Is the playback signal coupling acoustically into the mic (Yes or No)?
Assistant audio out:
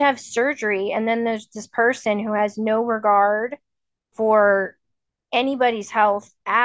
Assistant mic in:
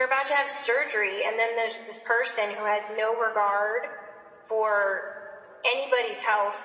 Yes